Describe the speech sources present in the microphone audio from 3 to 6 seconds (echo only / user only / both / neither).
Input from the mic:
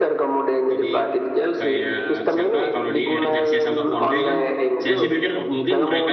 both